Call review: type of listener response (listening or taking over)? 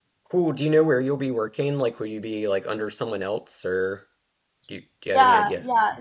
taking over